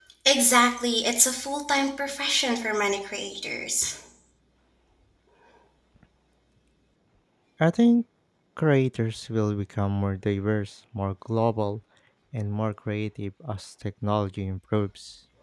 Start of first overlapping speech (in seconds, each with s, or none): none